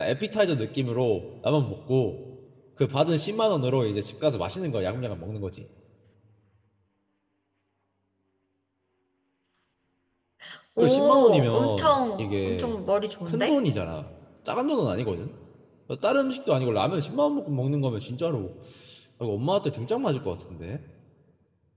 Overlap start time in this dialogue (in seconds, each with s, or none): 10.8 s